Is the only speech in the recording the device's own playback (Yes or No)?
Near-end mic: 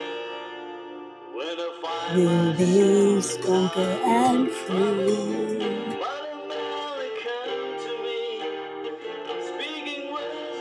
No